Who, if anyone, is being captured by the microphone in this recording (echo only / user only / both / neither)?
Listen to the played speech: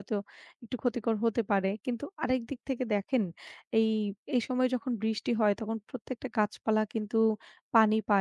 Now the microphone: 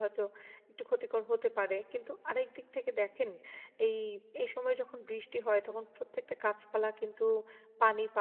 echo only